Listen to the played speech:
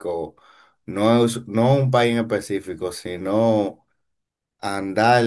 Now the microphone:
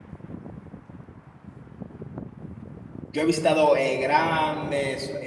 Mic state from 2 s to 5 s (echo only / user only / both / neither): user only